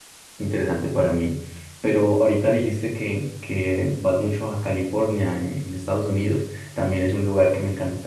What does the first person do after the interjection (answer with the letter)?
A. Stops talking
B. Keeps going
B